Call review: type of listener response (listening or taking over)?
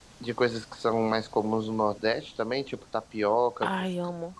taking over